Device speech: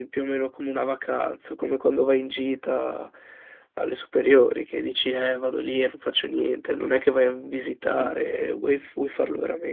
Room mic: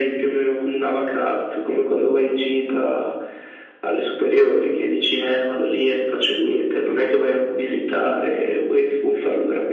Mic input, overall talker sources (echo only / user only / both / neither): echo only